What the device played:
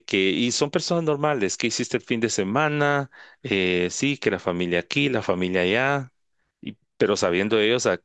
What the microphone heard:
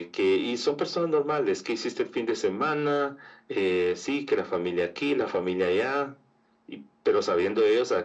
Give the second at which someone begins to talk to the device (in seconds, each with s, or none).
none